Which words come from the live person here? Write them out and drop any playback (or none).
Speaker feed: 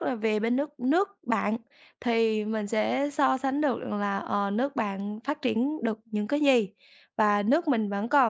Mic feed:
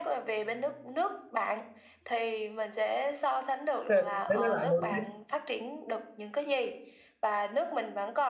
Ờ, để nó lạnh một xíu.